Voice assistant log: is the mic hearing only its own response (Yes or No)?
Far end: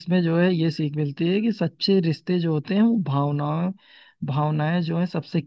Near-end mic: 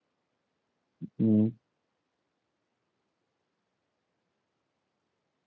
No